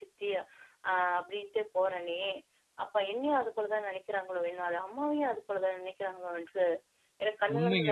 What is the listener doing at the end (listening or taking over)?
taking over